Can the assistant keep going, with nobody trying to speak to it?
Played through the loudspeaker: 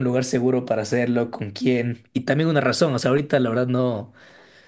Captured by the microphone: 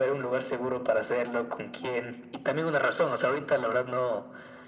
Yes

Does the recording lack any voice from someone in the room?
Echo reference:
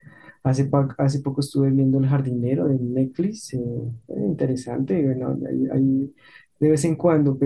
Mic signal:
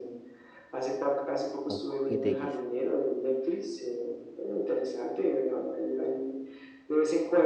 No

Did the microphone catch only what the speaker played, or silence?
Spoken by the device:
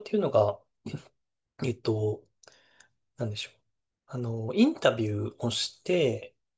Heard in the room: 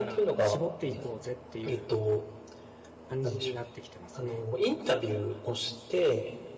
No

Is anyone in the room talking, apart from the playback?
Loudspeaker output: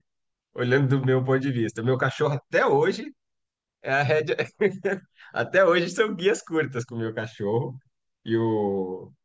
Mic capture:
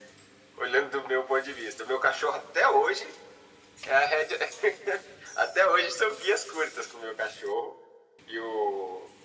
No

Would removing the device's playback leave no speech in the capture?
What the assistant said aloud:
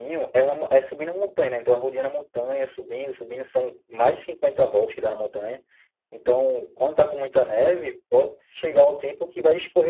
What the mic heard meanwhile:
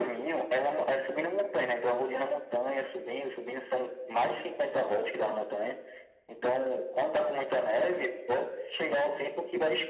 Yes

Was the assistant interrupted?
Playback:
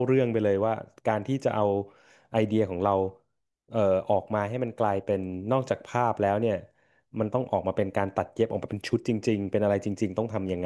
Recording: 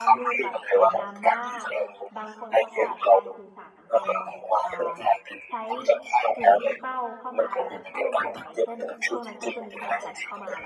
Yes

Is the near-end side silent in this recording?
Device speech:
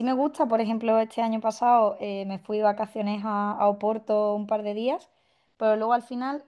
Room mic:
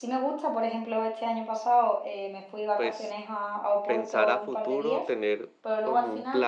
No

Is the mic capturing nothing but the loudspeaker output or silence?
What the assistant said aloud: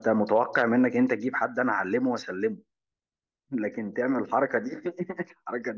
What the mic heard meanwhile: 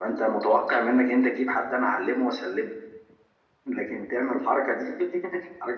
Yes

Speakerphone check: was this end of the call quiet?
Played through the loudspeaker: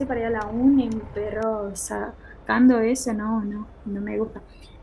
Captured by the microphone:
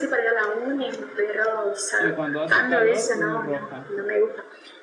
No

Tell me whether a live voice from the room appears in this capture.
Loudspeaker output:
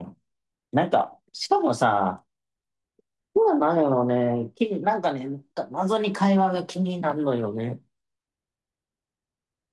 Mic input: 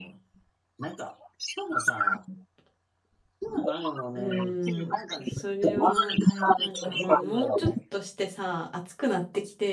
Yes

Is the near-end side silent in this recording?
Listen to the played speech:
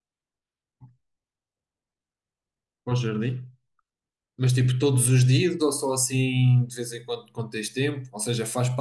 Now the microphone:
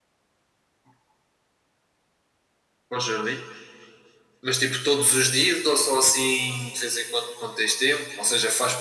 Yes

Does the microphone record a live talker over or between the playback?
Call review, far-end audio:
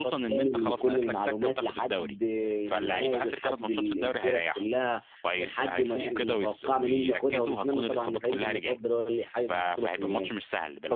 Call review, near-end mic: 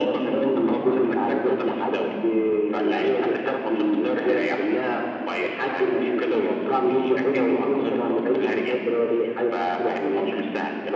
No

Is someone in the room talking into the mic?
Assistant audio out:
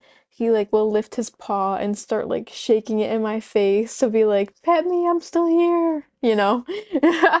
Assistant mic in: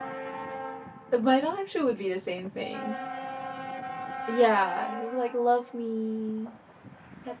Yes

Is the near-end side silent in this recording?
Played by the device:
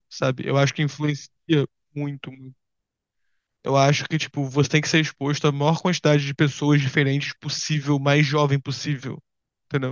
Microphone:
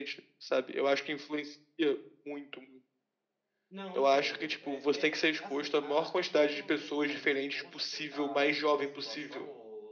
No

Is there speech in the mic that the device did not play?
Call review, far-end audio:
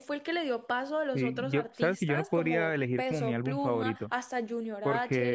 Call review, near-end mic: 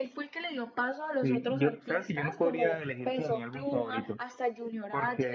No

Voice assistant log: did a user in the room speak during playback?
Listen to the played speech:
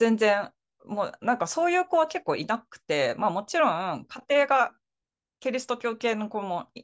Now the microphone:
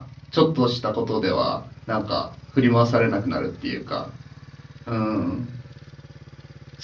Yes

